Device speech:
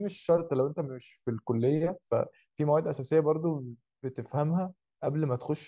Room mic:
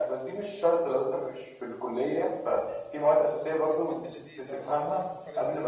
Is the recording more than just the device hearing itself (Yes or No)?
Yes